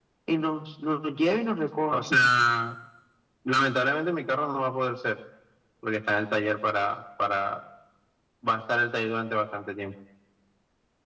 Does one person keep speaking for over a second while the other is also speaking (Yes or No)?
No